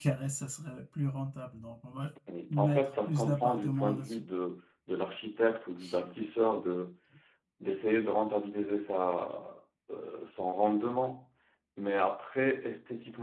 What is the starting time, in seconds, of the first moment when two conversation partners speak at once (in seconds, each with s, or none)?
2.5 s